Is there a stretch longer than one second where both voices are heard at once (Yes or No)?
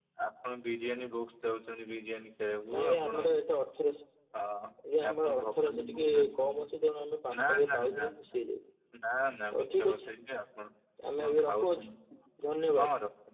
Yes